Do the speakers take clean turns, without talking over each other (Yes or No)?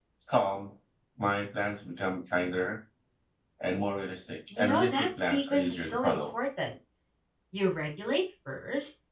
No